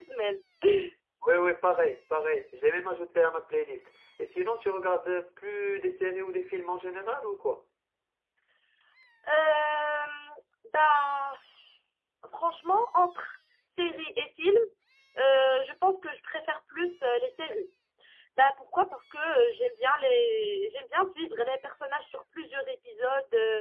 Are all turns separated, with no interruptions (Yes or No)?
Yes